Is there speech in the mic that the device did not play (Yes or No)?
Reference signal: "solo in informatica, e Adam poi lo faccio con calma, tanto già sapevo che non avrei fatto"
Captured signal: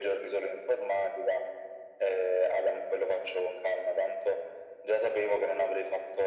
No